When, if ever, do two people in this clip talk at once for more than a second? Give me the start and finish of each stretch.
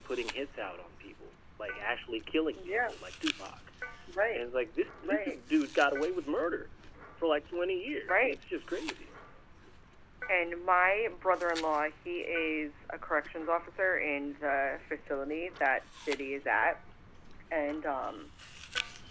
none

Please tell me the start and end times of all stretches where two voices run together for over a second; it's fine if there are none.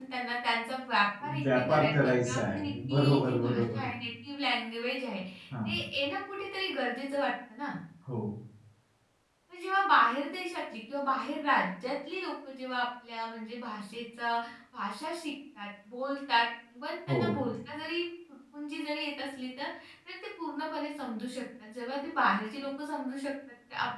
1.4-3.8

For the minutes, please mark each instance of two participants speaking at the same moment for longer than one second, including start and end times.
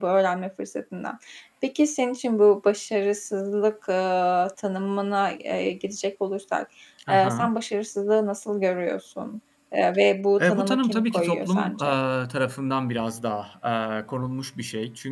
10.4-11.9

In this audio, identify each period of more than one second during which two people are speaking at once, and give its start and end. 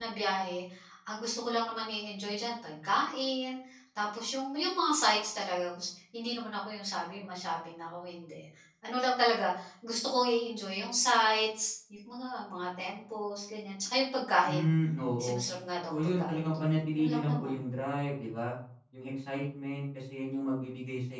15.9-17.5

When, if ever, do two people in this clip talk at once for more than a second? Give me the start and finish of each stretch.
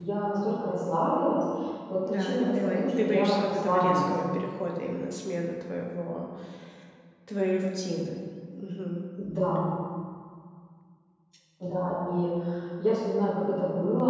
2.1-4.1

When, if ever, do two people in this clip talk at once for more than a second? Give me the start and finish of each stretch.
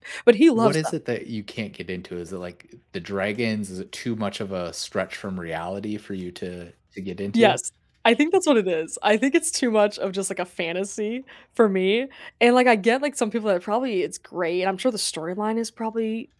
none

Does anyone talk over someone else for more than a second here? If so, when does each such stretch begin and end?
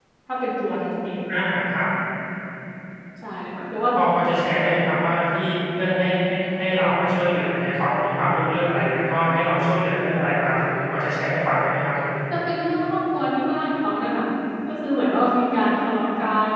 none

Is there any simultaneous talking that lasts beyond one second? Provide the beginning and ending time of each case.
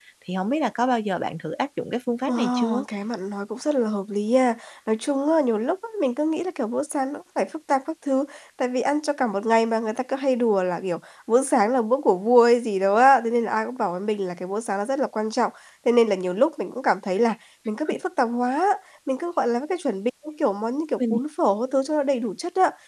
none

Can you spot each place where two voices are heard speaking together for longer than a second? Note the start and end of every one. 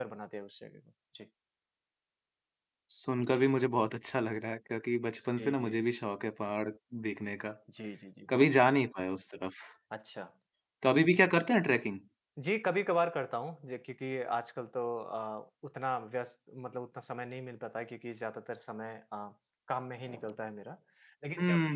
none

